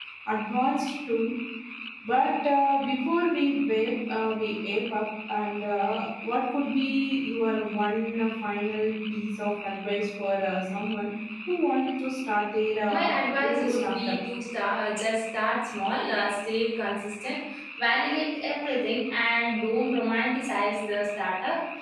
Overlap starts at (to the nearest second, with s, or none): 13 s